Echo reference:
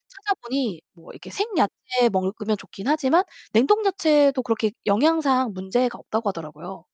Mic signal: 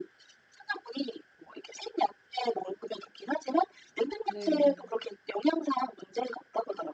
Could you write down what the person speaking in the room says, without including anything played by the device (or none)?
네.